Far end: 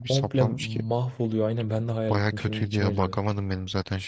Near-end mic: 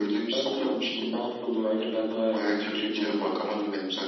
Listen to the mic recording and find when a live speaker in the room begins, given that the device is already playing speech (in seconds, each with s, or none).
none